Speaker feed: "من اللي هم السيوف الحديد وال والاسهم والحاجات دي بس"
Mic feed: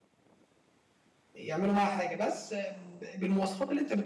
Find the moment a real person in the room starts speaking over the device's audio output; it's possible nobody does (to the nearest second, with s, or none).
1 s